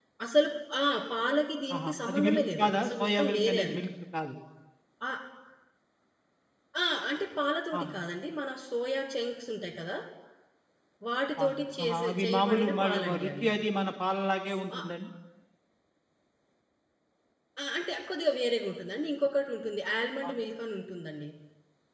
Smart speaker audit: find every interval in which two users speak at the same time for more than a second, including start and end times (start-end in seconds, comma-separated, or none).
1.8-3.8, 11.4-13.5